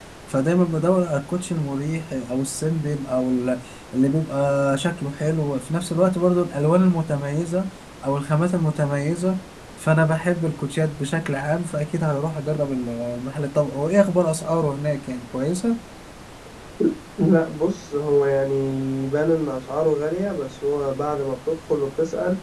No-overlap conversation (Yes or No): Yes